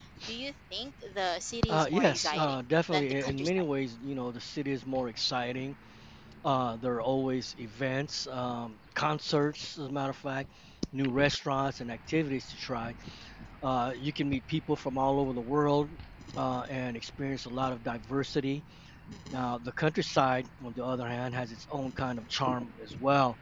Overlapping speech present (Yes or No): Yes